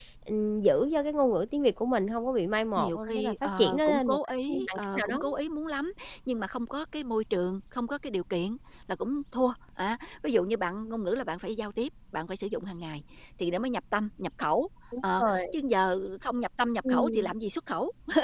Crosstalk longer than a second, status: present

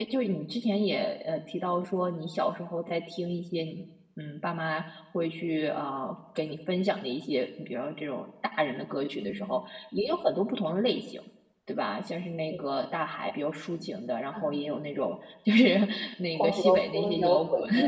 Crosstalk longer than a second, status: present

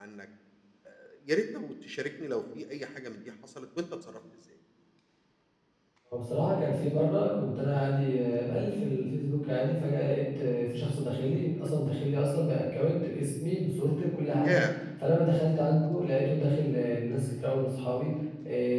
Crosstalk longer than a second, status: none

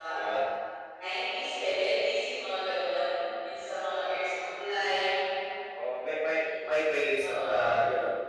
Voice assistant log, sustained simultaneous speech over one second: none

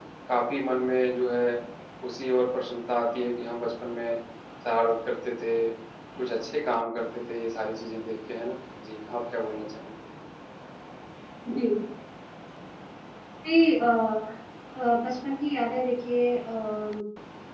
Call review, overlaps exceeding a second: none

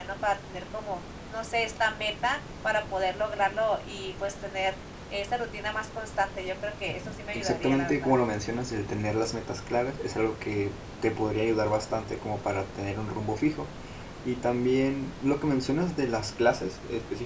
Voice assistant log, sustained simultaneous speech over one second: present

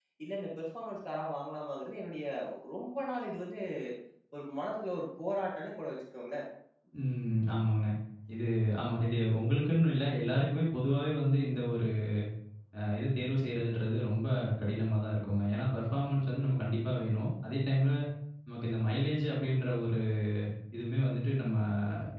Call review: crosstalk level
none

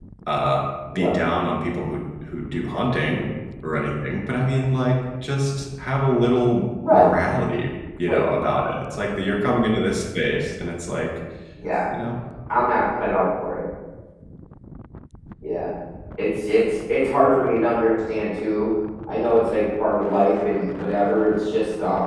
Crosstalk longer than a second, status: none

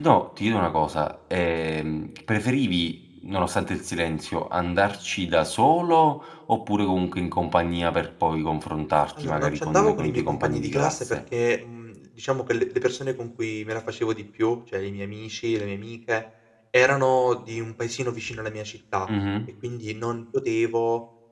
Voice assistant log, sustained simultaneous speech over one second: present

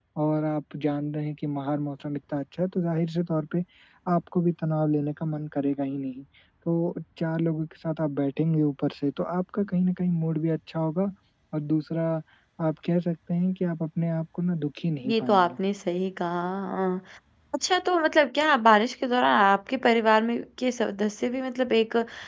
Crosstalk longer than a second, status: none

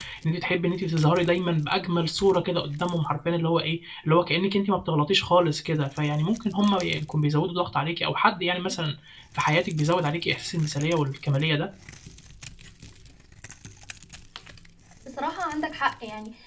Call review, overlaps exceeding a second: none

